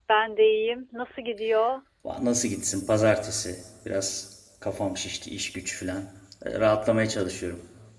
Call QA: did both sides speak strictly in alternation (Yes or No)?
Yes